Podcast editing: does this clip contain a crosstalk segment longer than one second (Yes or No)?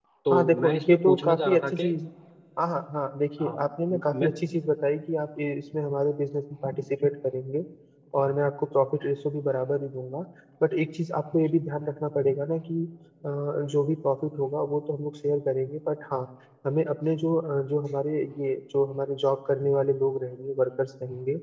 Yes